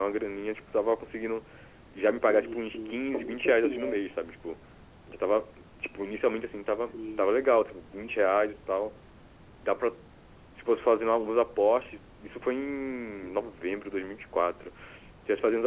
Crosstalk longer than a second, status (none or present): present